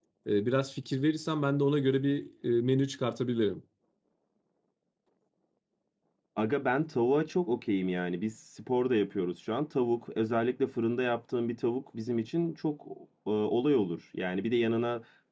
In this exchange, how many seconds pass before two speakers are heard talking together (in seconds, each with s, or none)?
none